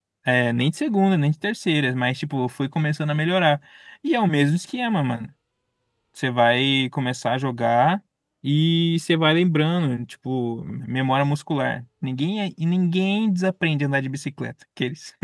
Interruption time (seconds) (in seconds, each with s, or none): none